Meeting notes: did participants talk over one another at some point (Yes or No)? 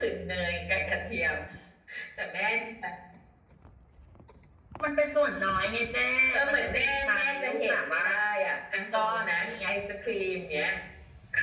Yes